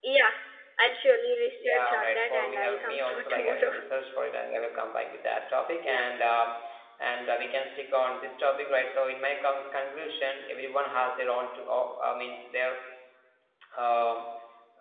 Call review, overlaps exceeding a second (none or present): present